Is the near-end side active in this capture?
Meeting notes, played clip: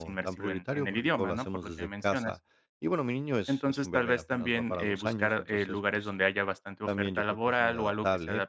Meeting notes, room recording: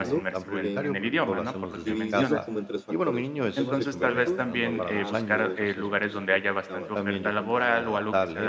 Yes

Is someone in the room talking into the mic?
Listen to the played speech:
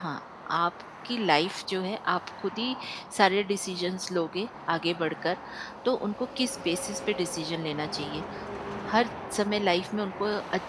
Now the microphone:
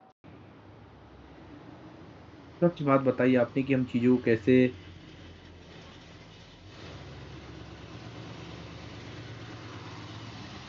Yes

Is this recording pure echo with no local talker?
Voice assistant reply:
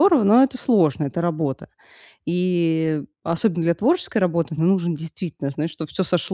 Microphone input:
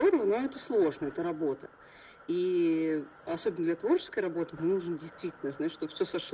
Yes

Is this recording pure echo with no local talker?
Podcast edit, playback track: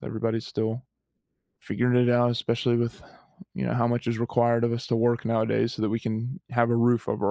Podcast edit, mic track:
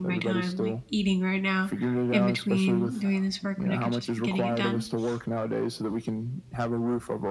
No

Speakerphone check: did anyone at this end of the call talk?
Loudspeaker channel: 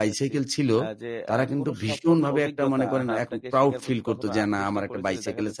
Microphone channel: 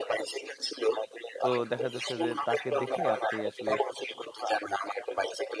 Yes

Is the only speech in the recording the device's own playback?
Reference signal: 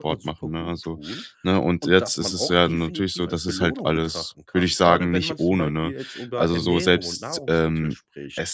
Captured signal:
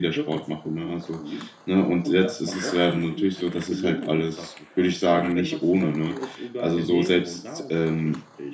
Yes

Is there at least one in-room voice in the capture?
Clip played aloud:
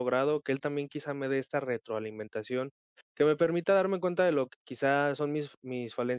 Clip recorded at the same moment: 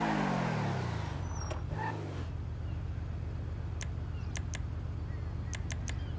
No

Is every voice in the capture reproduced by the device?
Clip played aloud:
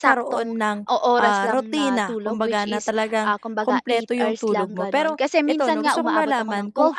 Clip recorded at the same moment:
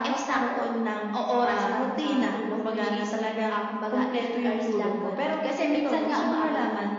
Yes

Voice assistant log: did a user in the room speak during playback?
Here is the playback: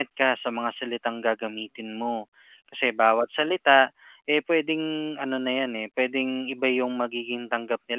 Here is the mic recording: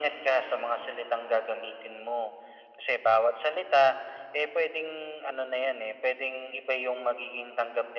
No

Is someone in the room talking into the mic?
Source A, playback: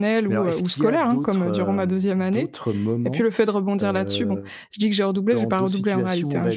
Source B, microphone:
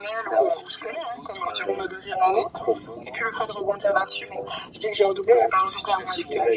No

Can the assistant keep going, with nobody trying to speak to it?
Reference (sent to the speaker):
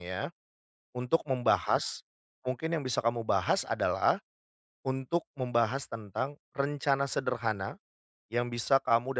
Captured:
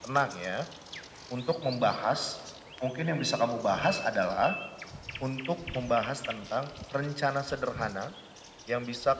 Yes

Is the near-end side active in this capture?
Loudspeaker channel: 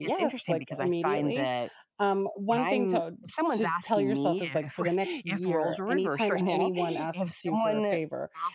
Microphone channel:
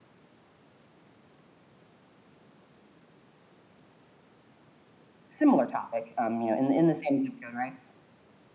Yes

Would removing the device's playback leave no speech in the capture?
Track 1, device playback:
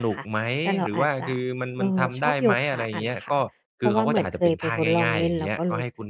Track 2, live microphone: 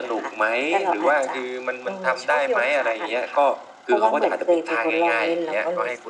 Yes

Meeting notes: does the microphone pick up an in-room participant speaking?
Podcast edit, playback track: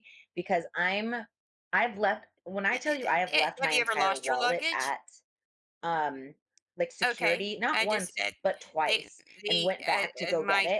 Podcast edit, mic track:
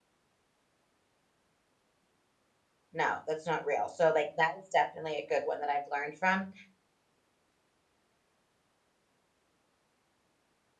Yes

